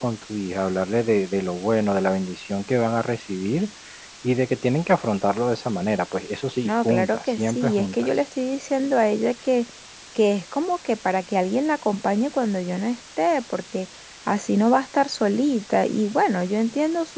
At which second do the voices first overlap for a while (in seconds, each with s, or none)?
6.7 s